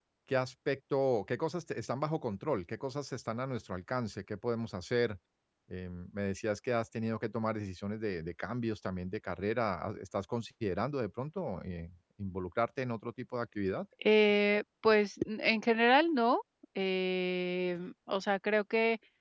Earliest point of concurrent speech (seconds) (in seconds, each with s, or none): none